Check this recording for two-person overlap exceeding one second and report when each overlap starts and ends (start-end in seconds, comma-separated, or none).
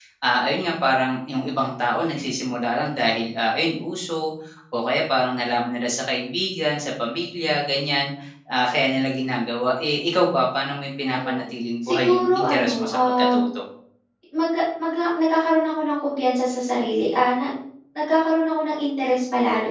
11.8-13.3